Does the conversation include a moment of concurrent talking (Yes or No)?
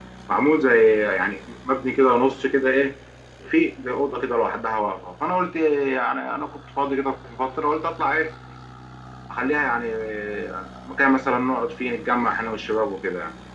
No